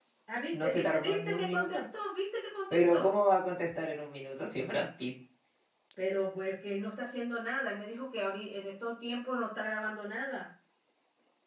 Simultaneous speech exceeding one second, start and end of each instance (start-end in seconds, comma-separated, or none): 0.5-1.8